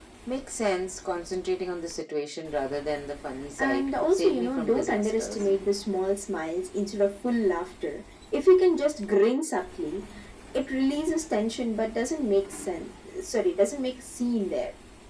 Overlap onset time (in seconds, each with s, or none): 3.6 s